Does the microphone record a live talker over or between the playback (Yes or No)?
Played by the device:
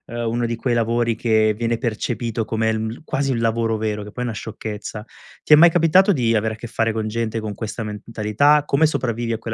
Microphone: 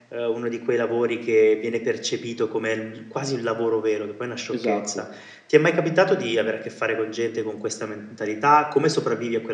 Yes